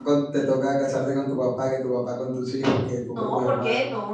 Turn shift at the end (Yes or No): Yes